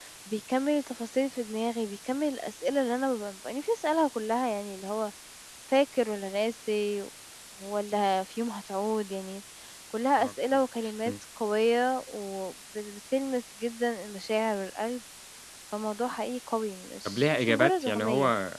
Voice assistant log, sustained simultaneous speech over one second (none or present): present